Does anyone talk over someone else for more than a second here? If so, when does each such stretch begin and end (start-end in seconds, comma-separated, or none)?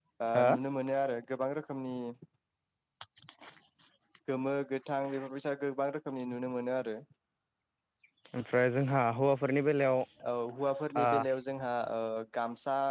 none